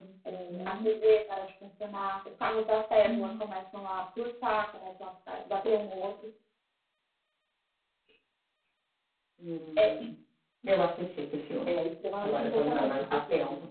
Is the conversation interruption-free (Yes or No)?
No